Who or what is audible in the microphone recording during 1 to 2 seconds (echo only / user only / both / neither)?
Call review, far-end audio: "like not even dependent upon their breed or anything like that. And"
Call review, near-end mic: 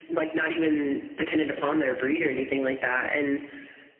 echo only